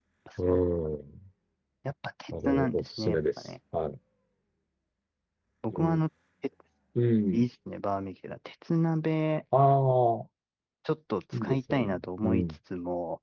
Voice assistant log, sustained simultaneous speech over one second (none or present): present